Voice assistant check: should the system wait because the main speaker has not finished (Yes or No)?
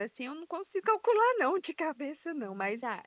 No